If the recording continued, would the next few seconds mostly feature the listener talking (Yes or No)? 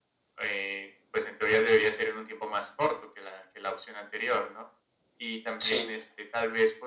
No